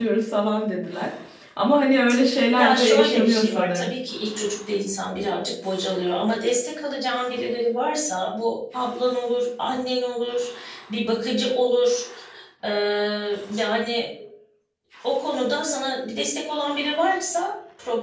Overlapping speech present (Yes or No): Yes